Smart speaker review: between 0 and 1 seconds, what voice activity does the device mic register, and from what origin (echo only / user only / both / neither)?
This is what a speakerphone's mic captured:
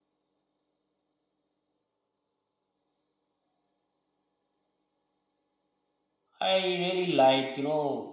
neither